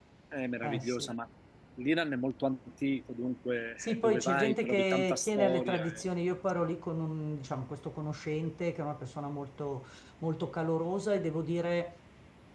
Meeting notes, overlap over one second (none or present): present